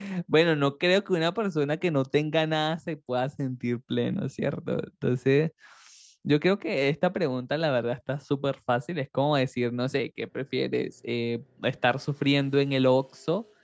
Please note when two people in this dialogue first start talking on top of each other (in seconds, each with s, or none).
none